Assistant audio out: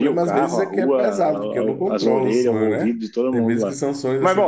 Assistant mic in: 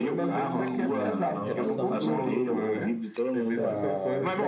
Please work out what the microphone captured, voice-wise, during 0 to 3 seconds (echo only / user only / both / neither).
both